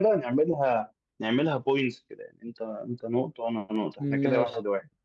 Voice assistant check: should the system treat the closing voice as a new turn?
Yes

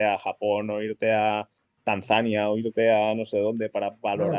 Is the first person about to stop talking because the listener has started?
Yes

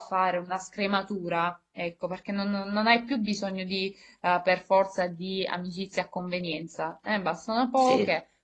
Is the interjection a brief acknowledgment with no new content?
Yes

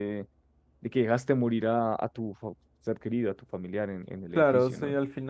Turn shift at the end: Yes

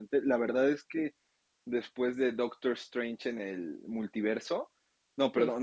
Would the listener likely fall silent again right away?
Yes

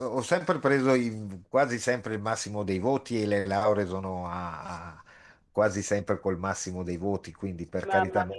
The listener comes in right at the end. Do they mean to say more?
Yes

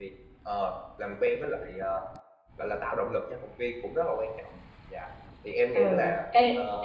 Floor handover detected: Yes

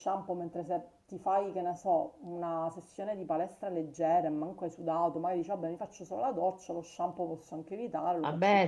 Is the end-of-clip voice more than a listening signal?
Yes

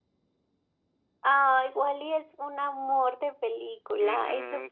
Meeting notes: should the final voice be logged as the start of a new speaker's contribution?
Yes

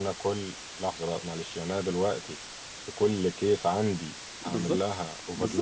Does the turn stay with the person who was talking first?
No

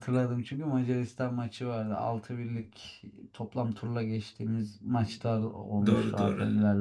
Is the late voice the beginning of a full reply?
Yes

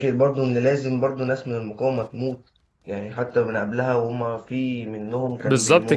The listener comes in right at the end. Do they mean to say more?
Yes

